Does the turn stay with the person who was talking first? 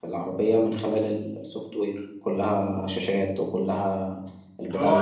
Yes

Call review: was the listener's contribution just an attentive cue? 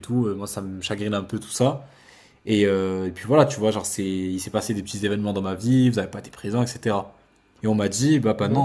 Yes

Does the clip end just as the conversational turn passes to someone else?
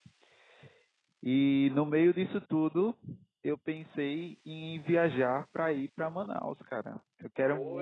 No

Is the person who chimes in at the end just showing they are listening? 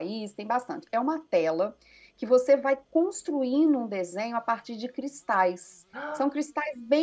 Yes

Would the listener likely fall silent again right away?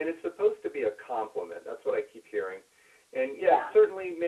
Yes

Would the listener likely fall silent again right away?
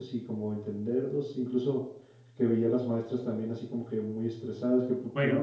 No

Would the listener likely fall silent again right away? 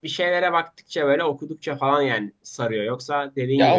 No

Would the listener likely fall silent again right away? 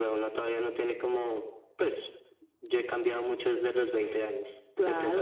No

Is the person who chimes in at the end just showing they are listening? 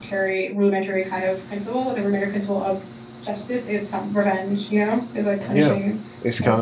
No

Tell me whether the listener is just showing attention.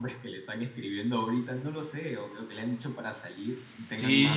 No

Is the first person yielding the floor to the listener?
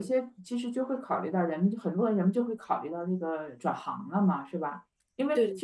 No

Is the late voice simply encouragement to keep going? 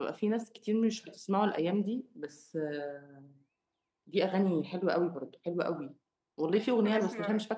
Yes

